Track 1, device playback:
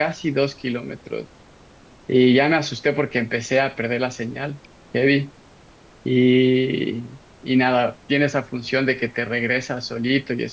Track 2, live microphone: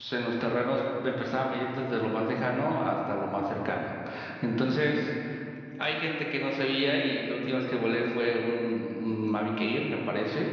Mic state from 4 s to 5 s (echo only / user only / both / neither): user only